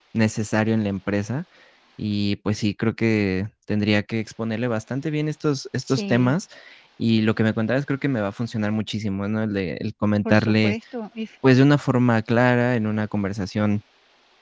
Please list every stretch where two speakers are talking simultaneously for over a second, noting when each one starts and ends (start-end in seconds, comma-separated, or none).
none